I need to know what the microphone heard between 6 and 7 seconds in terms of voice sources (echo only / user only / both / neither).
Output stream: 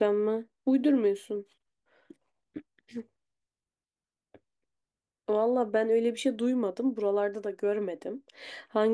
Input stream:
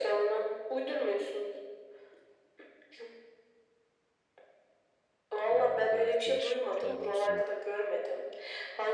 both